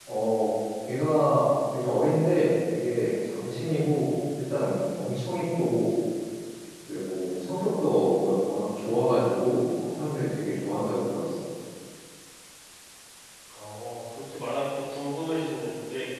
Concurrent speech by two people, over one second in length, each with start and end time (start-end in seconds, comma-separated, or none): none